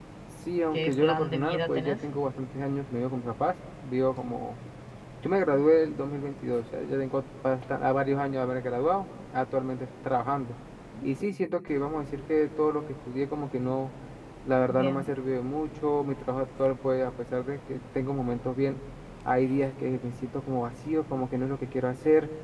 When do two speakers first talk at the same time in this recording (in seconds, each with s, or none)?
0.7 s